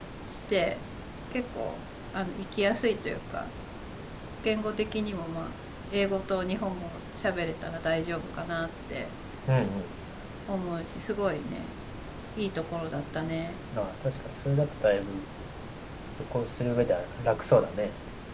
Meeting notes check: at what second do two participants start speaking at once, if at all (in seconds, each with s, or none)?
none